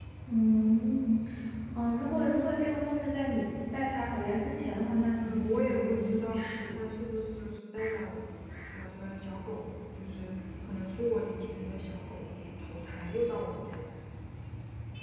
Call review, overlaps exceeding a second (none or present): present